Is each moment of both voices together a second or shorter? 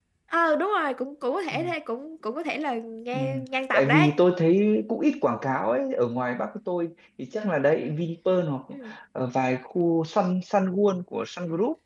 Yes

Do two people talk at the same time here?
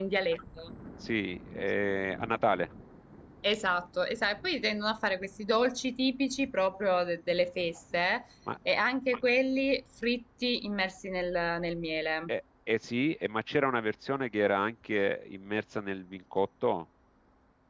No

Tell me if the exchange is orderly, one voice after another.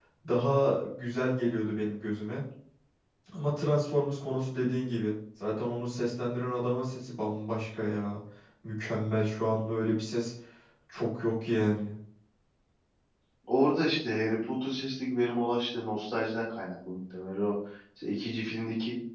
Yes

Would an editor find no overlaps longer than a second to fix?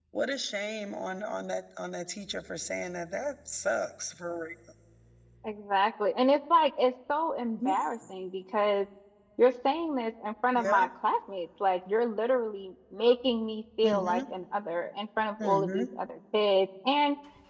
Yes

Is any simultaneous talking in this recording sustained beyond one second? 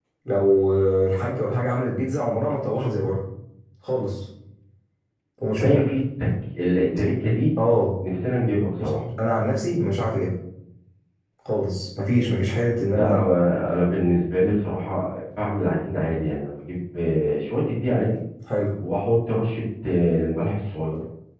No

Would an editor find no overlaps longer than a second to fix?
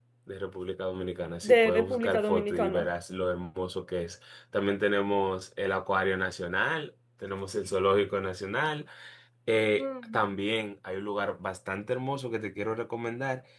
No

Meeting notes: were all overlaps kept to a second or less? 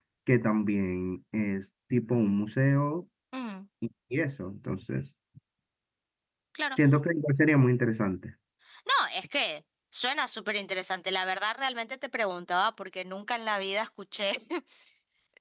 Yes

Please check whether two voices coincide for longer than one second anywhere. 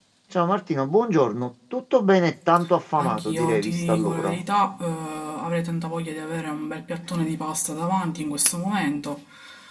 Yes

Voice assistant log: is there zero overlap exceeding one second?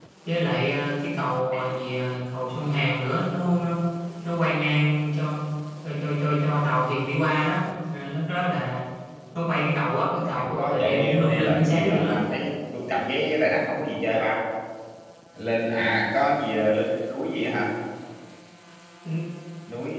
No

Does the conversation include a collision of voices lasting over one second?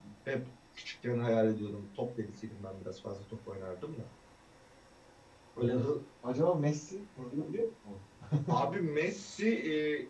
No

